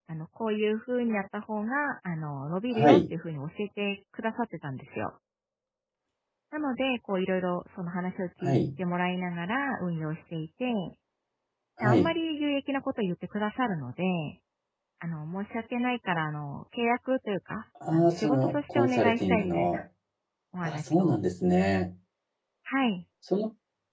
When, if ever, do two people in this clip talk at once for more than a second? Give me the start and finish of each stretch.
17.9-19.8

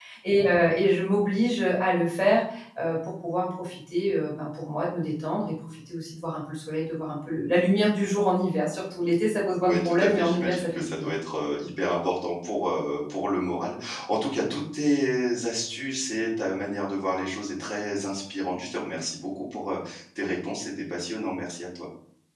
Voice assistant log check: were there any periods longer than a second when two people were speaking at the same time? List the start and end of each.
9.6-11.1

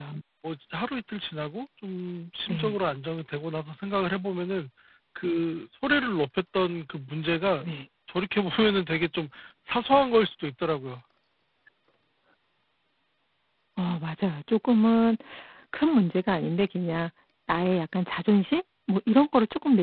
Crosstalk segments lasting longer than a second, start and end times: none

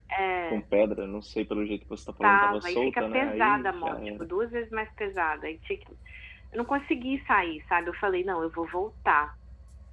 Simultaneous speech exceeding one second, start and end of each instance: 2.2-4.3

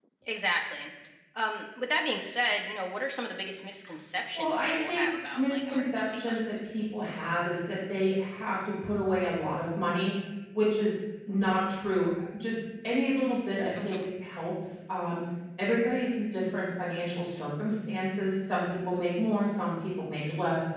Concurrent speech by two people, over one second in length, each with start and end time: 4.3-6.5

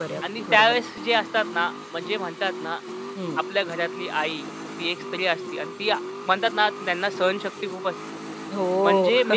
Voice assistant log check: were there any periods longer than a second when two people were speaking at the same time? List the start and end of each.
none

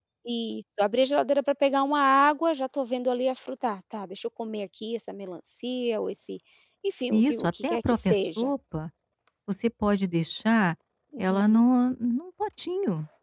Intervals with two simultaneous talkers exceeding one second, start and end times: 7.1-8.5

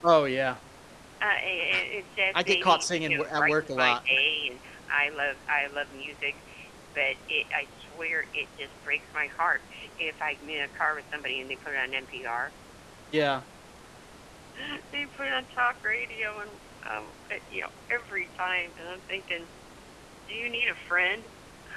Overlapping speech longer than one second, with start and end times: 2.3-4.0

